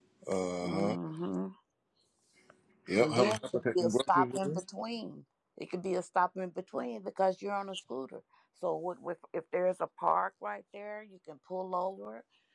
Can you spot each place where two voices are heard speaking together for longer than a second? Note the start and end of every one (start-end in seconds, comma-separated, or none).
3.0-4.6